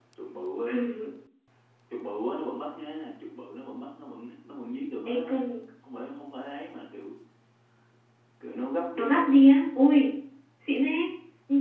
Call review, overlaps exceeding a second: none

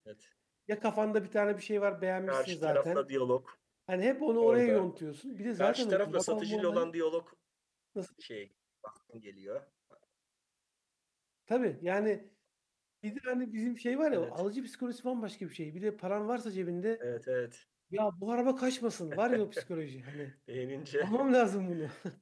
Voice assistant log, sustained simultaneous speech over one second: present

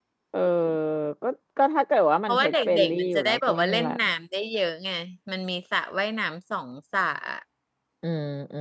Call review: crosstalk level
present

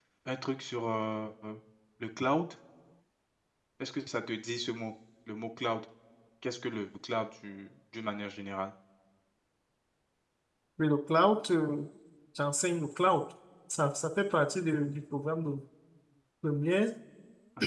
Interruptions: none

